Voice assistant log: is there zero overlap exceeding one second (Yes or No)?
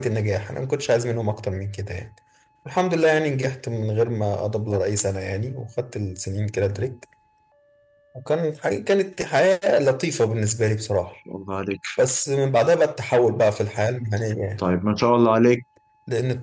Yes